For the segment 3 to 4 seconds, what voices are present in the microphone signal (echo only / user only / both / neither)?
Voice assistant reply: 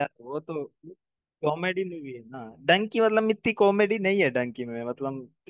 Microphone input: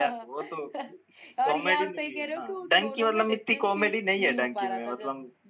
both